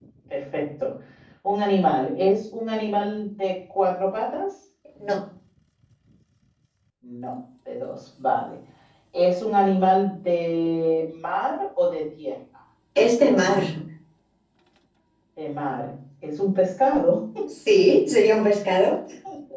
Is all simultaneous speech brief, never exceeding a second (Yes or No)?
Yes